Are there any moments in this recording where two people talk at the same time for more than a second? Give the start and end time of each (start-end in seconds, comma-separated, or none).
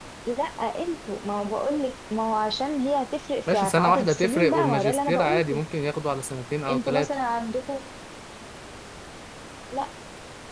3.5-5.6